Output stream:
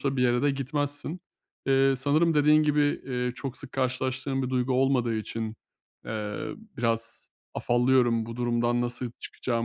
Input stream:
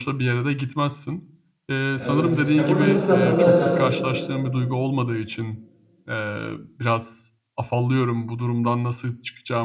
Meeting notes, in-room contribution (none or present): present